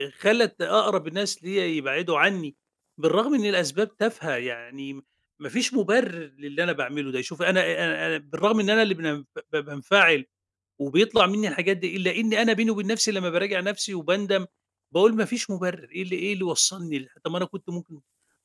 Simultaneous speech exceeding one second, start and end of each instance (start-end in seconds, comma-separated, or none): none